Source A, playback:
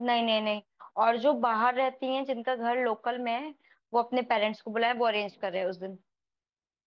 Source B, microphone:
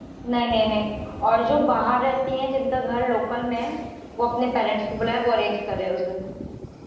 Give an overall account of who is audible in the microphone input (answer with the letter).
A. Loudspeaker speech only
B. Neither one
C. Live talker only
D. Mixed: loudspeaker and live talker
A